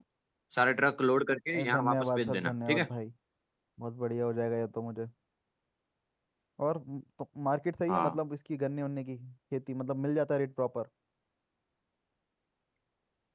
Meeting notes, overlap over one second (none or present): present